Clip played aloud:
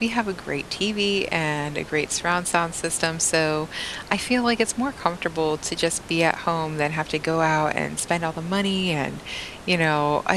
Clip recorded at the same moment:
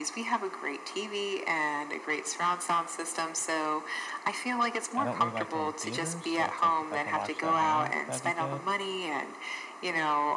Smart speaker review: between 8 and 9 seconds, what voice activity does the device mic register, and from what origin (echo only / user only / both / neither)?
both